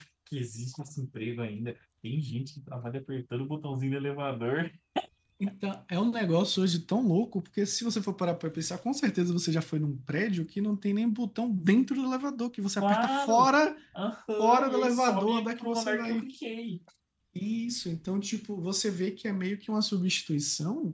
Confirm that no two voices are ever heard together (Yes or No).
No